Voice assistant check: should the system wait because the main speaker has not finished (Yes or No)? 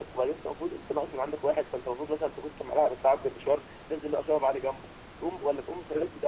Yes